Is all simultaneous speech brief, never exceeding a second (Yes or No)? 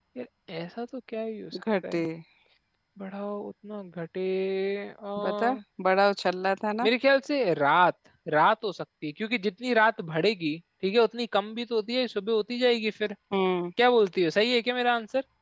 Yes